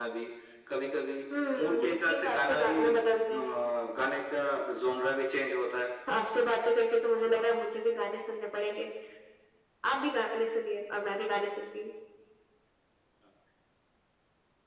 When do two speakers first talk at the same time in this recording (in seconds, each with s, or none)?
1.5 s